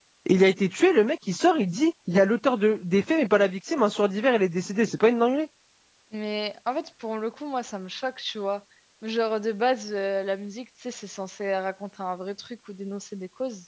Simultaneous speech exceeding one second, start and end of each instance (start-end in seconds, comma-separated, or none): none